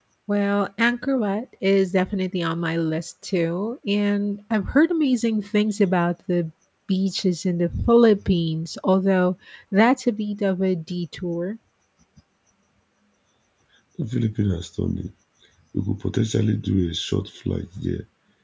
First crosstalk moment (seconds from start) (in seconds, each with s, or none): none